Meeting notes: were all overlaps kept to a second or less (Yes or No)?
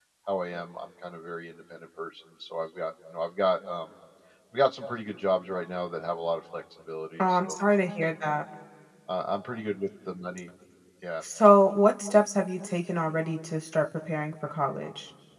Yes